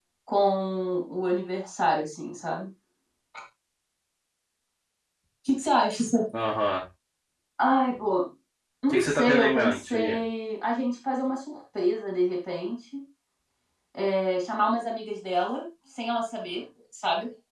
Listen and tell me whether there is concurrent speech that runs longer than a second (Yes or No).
Yes